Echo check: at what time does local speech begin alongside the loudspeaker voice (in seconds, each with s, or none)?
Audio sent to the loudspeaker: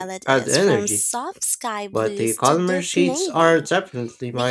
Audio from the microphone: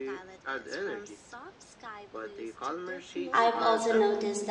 3.3 s